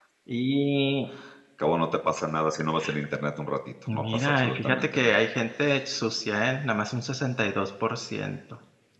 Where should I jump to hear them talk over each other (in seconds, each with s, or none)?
3.9 s